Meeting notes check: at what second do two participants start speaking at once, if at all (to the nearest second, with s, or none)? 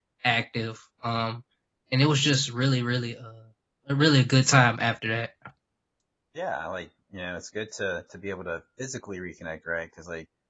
none